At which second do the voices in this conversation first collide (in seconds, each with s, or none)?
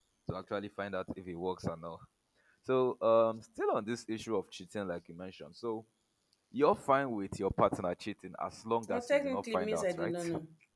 8.8 s